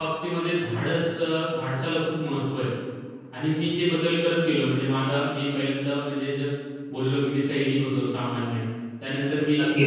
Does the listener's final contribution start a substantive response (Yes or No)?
Yes